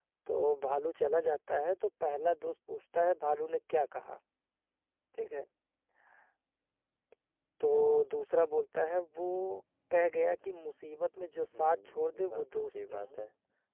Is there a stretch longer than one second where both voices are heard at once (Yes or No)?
Yes